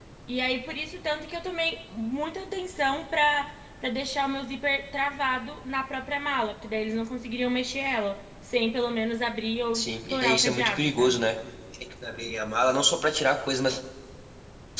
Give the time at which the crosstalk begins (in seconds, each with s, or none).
9.7 s